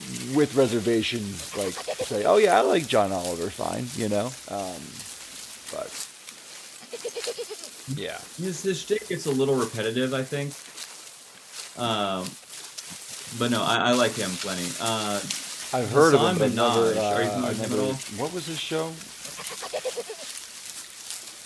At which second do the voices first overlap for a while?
16 s

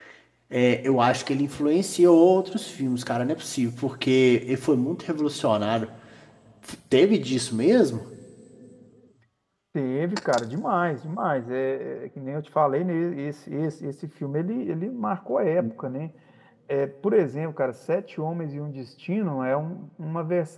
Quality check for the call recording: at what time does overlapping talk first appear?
none

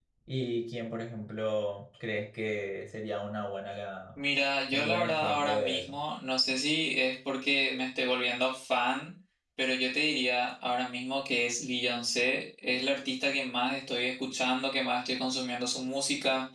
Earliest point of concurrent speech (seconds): 5 s

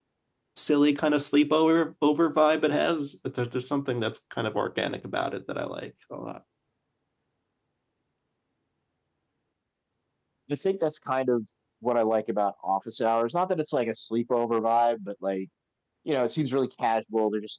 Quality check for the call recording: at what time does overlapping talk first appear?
none

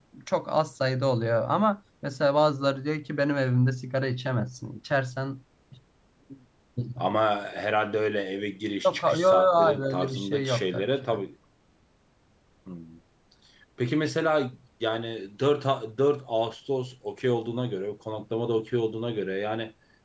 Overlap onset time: 9 s

